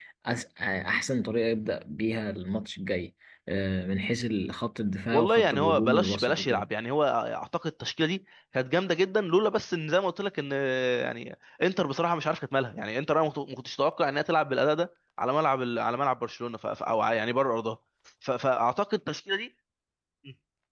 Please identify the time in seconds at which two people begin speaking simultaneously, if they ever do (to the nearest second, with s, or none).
5 s